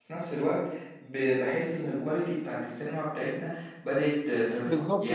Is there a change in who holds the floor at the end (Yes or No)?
Yes